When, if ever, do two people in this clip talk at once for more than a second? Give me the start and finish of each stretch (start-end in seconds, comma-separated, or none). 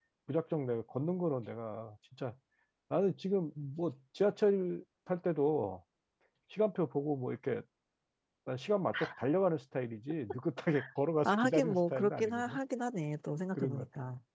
11.2-12.6